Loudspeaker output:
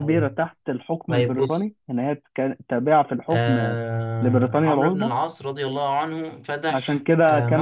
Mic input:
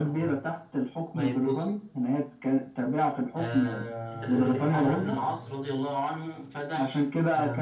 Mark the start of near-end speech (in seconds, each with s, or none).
4.1 s